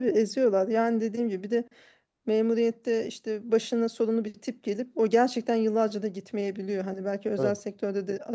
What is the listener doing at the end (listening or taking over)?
listening